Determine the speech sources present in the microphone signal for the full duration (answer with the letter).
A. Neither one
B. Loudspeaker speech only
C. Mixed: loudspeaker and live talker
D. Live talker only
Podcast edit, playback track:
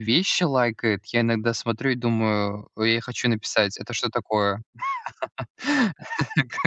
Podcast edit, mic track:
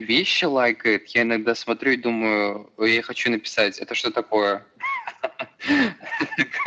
B